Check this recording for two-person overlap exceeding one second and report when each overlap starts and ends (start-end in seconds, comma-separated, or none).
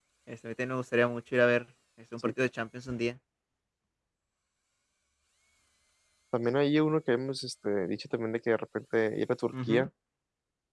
none